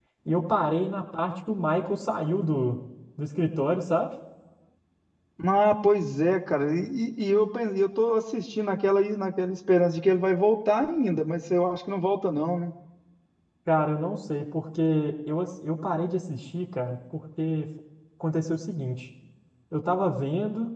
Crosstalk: none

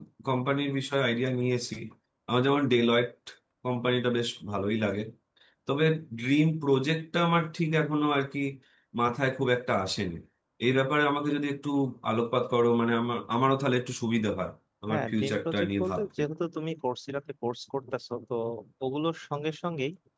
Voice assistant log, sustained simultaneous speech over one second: present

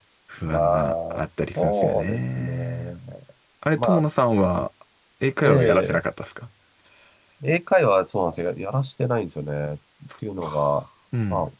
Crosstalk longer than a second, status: present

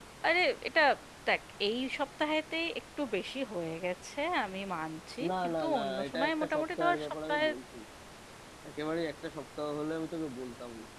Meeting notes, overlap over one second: present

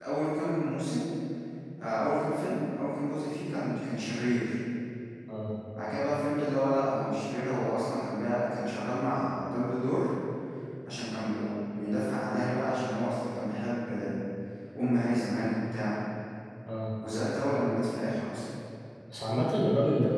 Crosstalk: none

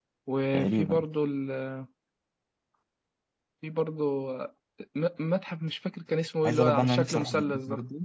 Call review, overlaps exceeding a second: present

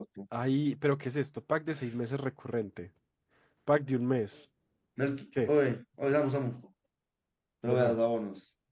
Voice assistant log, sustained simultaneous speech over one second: none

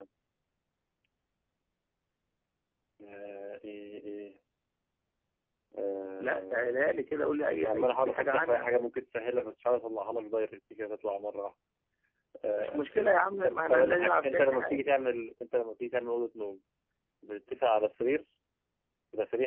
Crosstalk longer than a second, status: present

